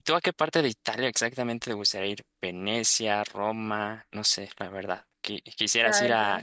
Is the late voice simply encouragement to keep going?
Yes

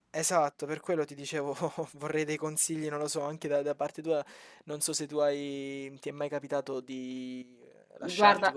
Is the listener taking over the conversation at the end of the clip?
No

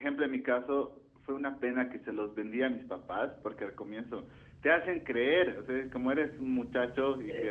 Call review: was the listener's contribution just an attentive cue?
Yes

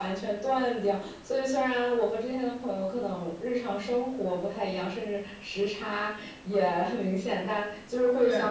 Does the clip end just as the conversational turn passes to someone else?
No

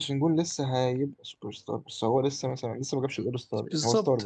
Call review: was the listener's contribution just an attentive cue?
No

